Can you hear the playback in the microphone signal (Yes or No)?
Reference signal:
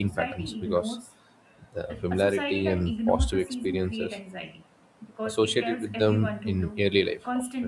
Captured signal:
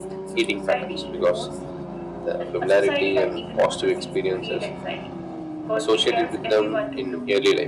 Yes